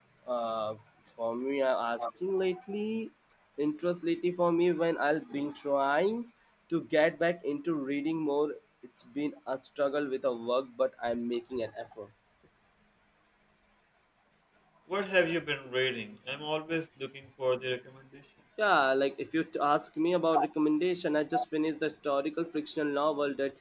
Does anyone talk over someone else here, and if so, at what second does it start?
none

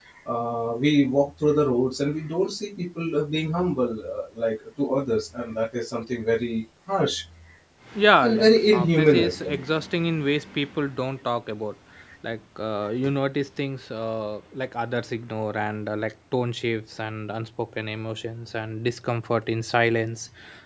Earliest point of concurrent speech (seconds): 8 s

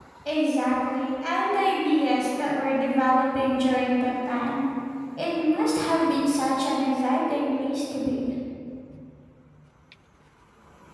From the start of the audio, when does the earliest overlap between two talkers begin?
none

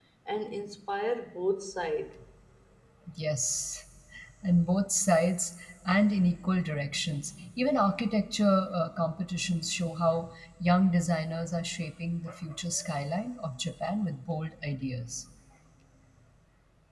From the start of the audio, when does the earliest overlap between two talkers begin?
none

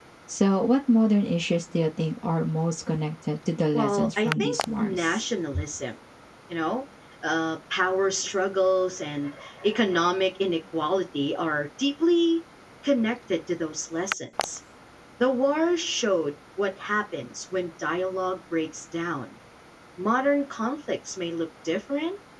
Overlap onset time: 4 s

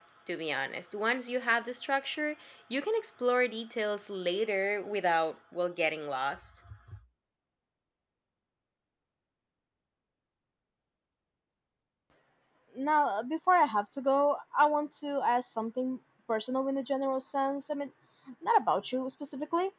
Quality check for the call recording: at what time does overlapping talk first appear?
none

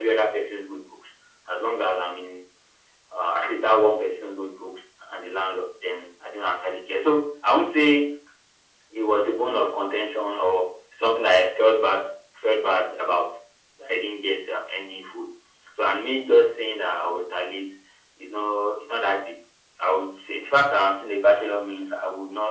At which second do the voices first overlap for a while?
none

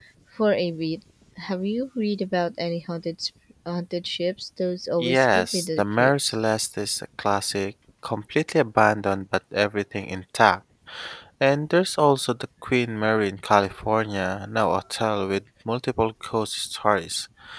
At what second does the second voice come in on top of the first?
5 s

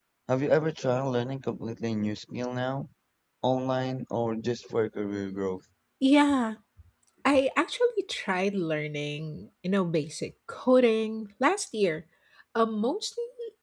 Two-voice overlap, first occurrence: none

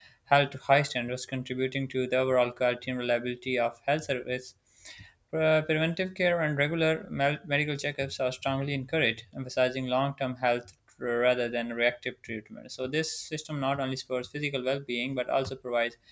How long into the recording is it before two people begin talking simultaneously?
none

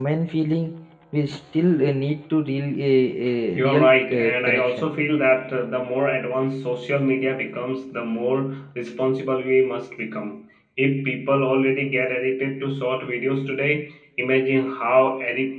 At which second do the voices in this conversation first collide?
4 s

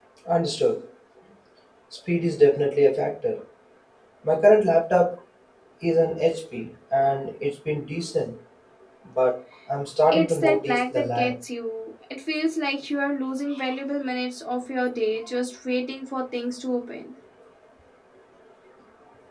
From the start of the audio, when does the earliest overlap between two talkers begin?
10 s

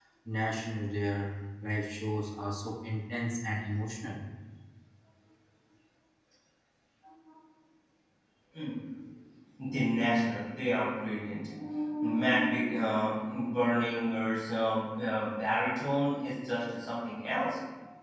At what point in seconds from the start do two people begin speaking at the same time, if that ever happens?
none

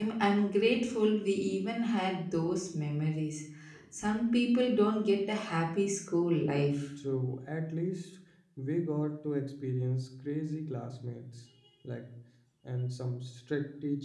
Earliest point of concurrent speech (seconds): none

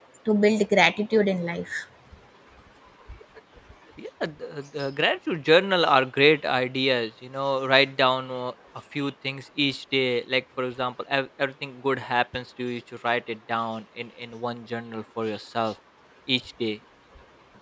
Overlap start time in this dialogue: none

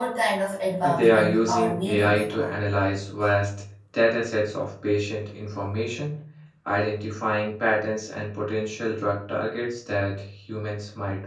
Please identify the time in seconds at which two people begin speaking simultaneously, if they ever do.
1 s

